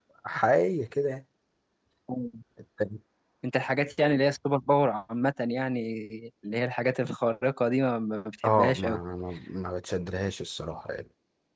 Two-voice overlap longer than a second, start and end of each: none

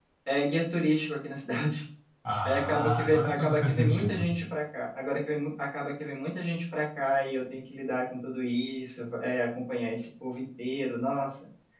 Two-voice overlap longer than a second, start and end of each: 2.4-4.3

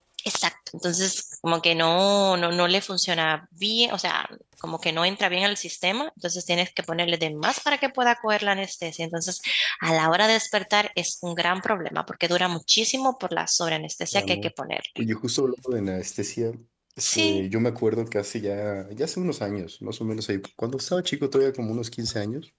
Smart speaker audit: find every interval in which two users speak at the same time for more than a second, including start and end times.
none

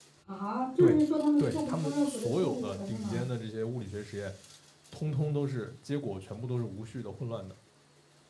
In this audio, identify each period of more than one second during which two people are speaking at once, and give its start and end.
1.4-3.2

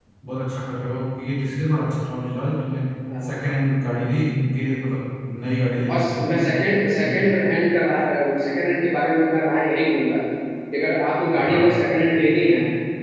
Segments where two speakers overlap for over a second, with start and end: none

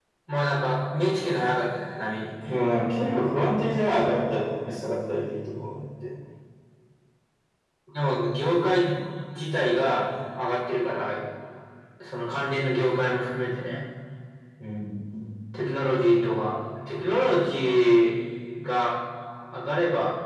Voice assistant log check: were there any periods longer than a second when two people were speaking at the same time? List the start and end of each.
none

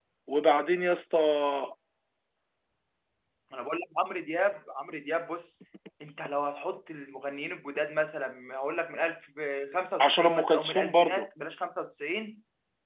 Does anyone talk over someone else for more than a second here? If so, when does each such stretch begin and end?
10.0-11.3

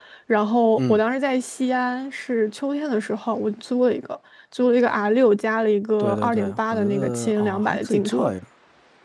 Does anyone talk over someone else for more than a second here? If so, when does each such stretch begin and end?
6.0-8.3

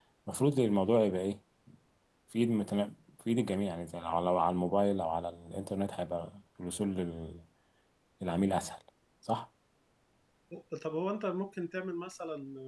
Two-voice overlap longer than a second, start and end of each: none

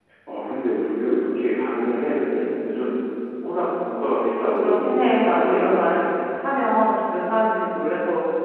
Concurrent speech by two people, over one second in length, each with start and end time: 4.5-6.0

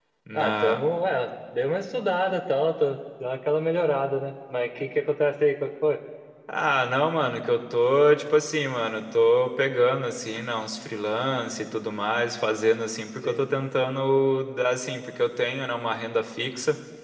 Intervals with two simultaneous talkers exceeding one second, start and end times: none

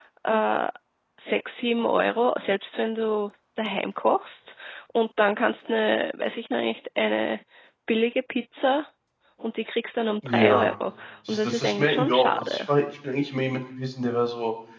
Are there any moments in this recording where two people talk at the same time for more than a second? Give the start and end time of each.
11.3-12.7

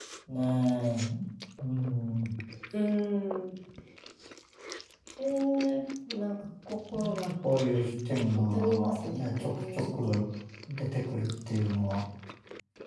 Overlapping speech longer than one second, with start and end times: 8.4-10.2

